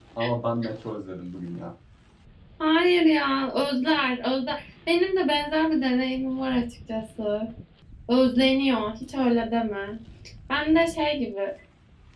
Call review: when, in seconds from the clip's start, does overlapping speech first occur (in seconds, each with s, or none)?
none